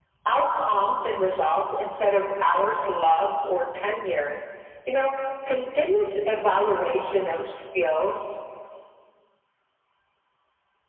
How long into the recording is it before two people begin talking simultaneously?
none

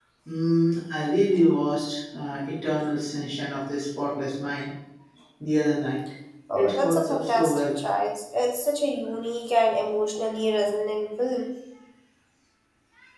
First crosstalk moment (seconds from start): 6.5 s

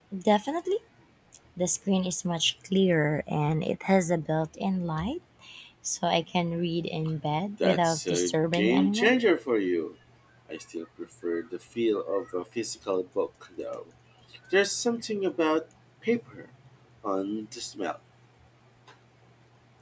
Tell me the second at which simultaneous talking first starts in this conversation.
7.6 s

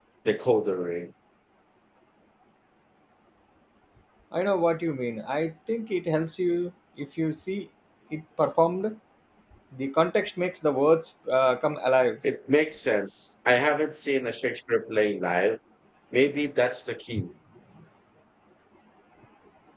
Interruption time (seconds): none

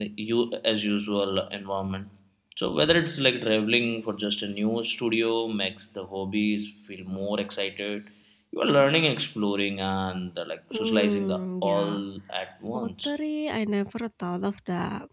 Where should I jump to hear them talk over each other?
10.7 s

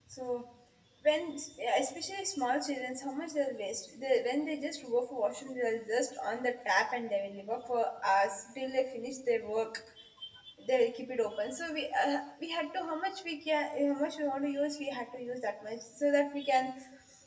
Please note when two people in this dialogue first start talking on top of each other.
none

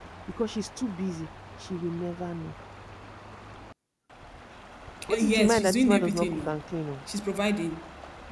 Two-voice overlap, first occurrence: 5.1 s

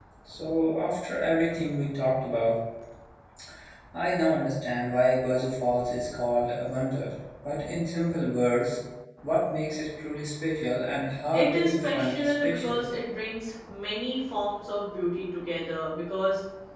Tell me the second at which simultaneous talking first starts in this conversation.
11.3 s

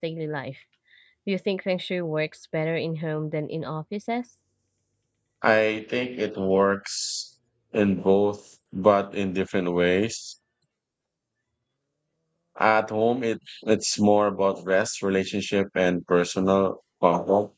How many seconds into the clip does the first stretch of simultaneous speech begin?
none

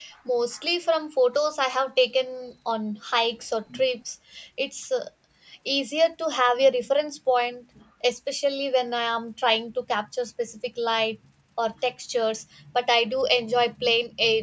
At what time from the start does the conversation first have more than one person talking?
none

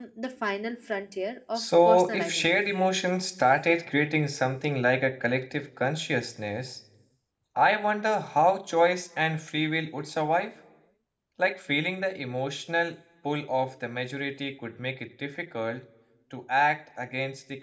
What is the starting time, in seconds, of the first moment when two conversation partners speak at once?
1.5 s

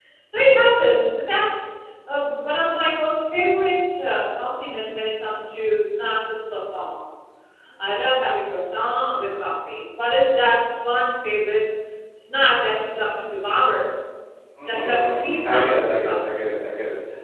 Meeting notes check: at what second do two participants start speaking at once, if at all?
14.7 s

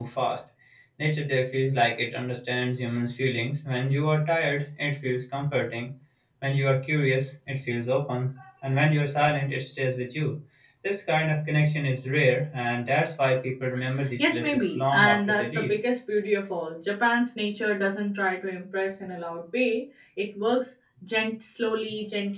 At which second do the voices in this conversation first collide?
14.2 s

